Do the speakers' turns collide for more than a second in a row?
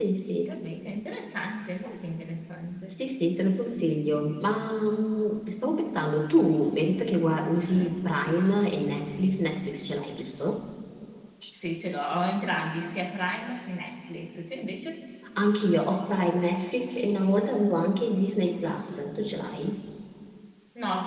No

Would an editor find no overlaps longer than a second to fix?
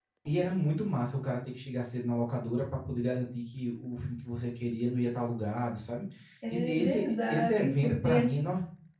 No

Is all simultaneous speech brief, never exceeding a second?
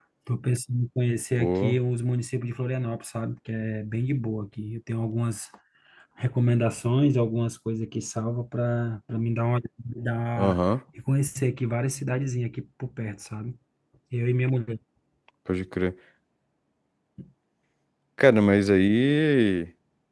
Yes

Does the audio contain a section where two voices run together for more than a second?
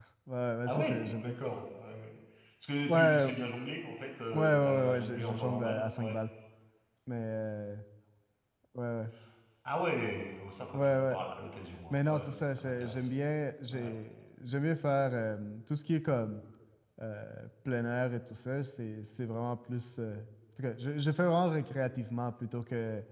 Yes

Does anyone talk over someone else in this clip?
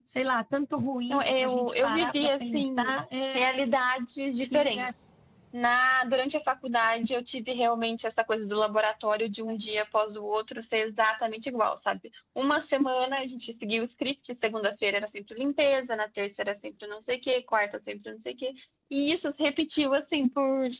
Yes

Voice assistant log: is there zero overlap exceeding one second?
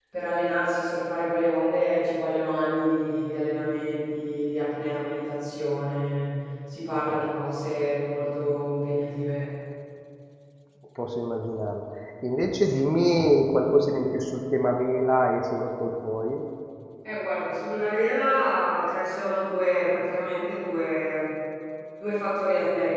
Yes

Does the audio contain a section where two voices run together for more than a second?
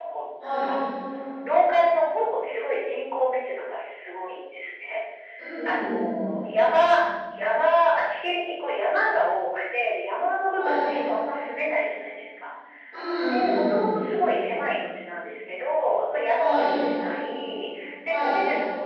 No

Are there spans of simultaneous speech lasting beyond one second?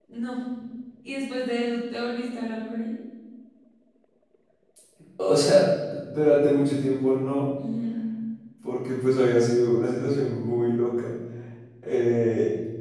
No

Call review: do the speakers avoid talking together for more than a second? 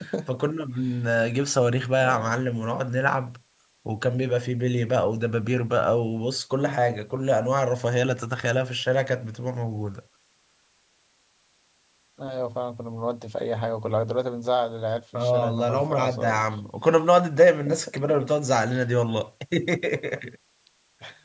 No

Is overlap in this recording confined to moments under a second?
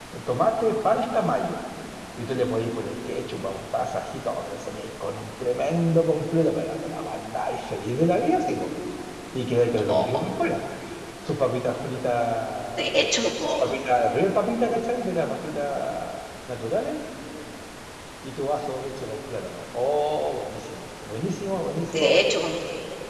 Yes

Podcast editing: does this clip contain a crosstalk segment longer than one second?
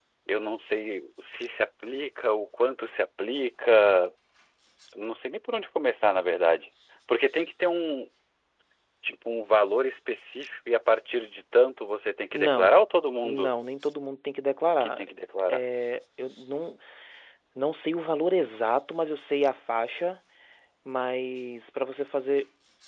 No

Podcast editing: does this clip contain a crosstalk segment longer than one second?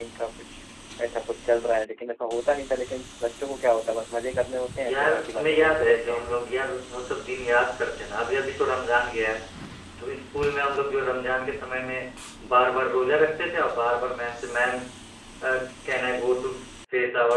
Yes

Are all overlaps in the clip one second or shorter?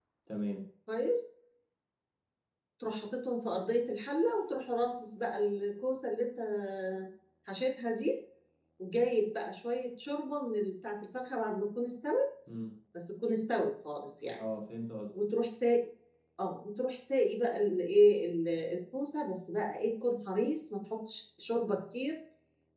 Yes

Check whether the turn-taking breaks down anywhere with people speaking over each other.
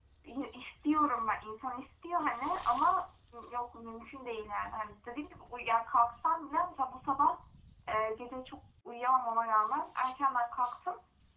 No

